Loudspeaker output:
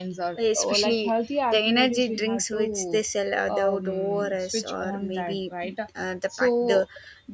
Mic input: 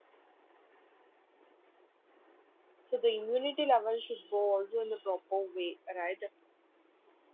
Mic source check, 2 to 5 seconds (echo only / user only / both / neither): user only